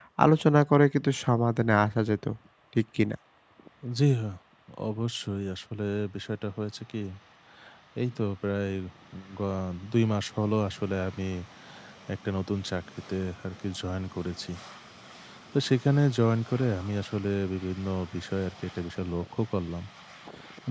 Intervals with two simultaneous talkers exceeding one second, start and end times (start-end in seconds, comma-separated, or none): none